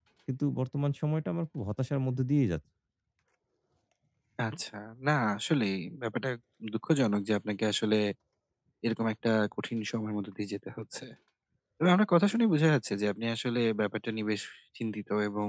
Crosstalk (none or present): none